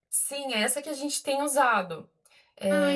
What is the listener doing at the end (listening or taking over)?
taking over